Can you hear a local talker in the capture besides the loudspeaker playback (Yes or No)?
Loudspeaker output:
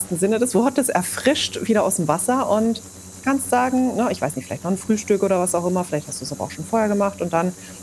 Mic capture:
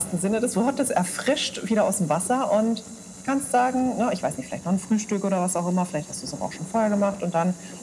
No